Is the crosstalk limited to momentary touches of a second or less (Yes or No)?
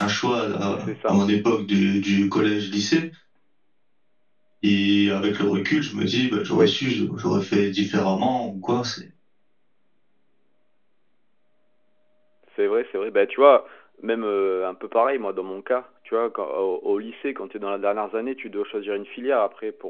Yes